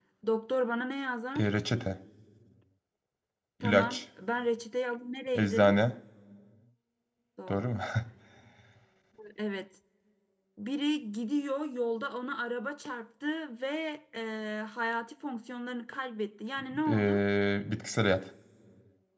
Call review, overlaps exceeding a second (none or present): none